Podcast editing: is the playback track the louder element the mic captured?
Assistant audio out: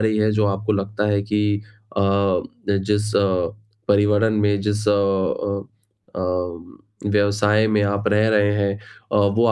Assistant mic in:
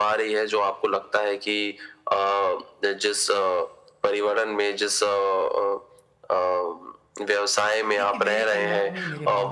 Yes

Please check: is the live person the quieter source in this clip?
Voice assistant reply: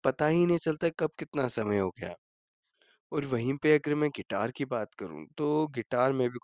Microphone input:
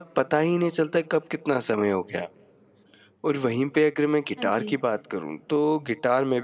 Yes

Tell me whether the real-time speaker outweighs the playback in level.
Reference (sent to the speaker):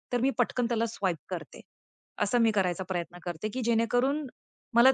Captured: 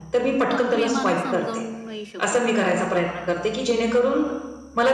No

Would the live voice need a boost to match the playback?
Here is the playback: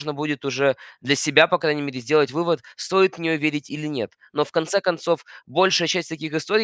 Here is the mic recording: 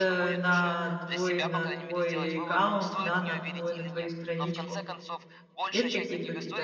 No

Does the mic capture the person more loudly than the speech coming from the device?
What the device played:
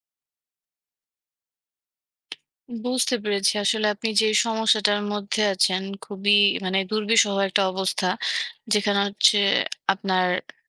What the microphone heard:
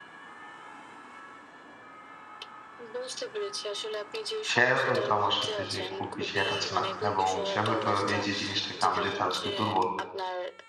Yes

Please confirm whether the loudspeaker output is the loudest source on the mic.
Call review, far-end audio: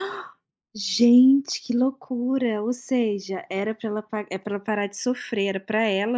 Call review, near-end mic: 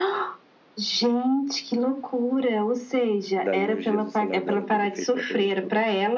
Yes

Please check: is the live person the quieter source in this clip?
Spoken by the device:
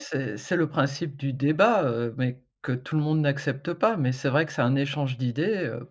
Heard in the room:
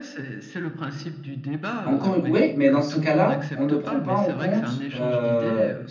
No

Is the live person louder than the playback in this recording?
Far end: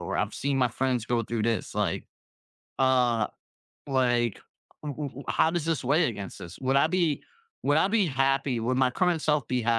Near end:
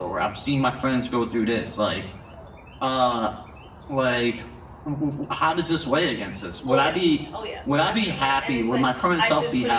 No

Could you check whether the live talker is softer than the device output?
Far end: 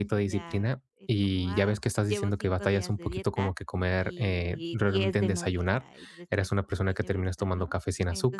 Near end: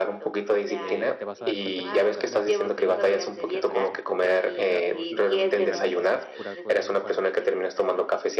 Yes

